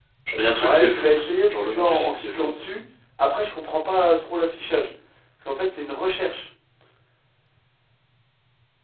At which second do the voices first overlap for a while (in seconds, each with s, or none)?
0.6 s